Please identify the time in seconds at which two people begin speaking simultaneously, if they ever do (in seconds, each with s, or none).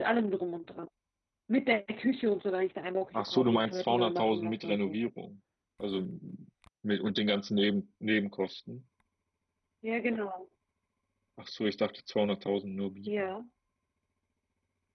3.1 s